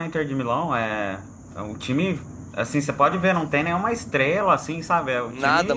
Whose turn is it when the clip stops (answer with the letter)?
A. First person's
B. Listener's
B